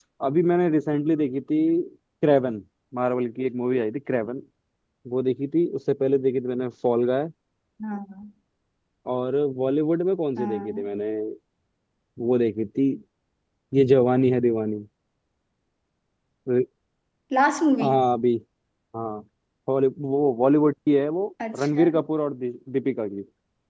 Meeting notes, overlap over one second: none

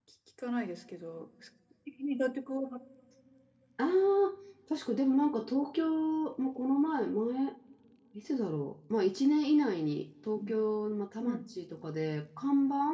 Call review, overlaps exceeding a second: none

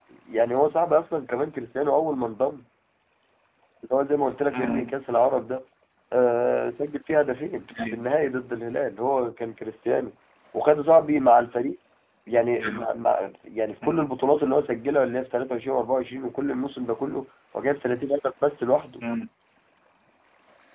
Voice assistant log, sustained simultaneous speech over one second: none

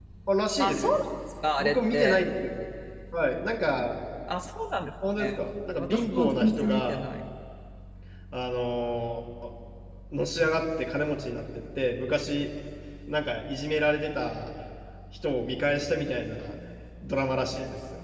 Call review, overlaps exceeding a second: present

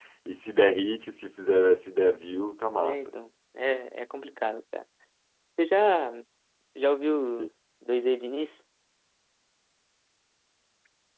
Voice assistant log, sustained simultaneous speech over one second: none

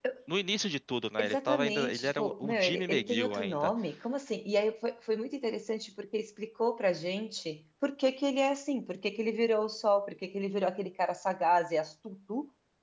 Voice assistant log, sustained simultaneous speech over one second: present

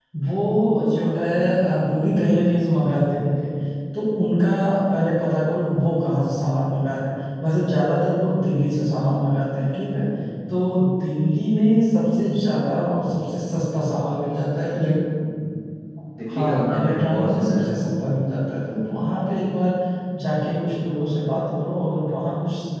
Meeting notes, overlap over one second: present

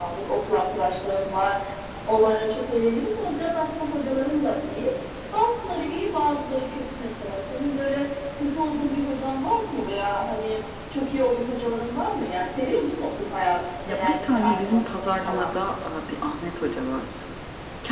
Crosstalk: present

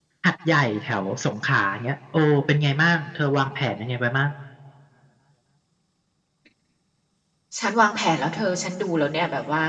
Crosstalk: none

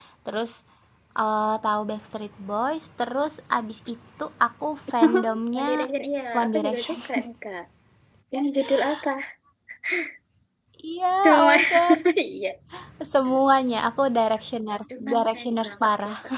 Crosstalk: present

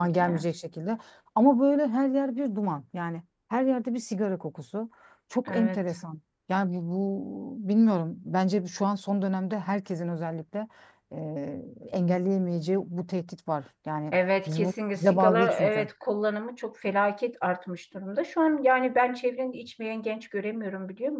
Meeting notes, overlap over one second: present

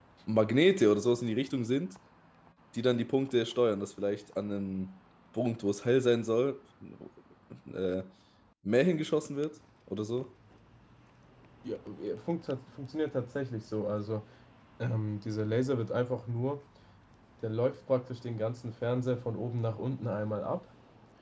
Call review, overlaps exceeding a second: none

